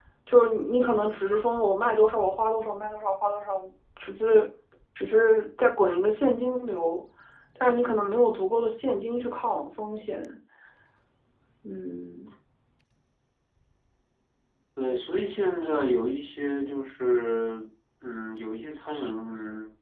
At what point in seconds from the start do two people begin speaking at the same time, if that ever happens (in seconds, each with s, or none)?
none